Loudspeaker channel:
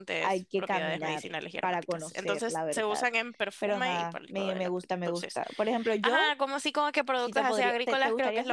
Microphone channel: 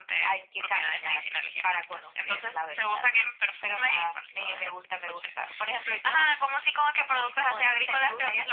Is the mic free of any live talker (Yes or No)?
Yes